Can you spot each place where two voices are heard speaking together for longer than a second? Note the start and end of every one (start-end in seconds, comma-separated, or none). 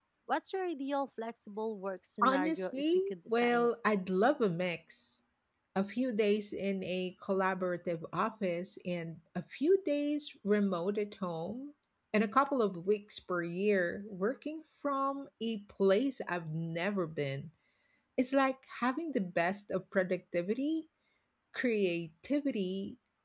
2.2-3.7